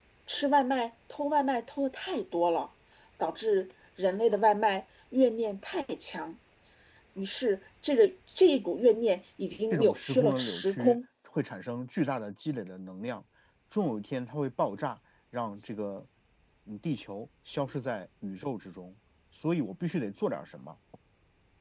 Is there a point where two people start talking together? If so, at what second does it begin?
10 s

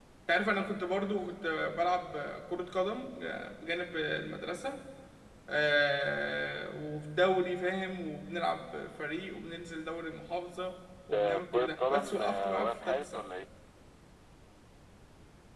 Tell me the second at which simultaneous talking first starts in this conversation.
11 s

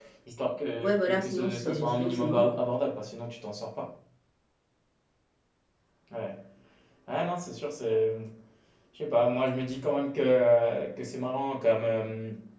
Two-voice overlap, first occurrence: 1 s

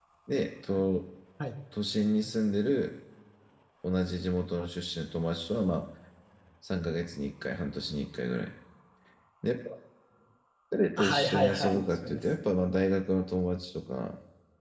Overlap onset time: 11 s

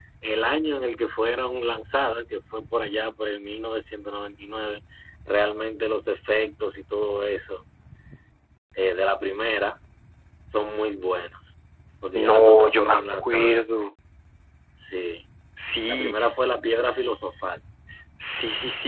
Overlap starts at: 12 s

